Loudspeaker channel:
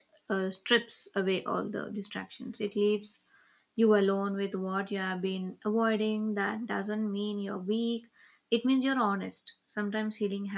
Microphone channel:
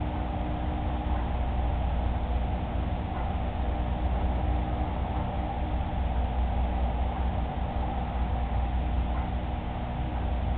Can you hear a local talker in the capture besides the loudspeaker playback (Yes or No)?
No